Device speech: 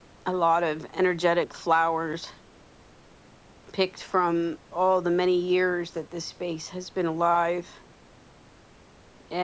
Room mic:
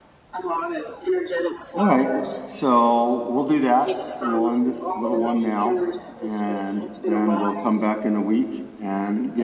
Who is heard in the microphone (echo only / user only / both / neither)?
both